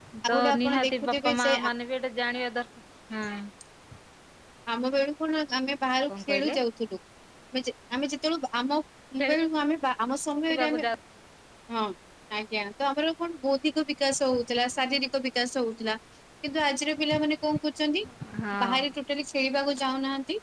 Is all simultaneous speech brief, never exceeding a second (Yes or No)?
No